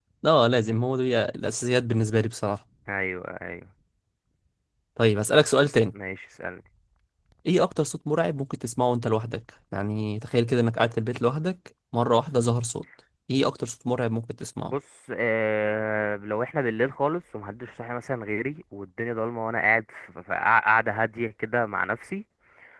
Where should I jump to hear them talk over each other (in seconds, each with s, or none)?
none